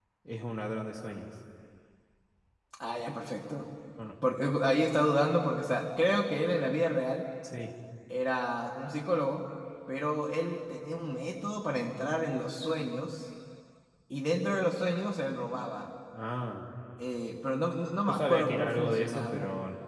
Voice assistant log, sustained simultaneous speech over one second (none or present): present